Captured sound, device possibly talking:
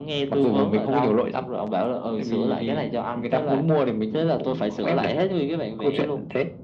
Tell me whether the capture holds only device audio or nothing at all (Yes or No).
Yes